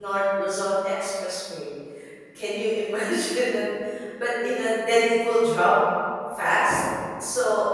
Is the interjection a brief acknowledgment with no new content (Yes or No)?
Yes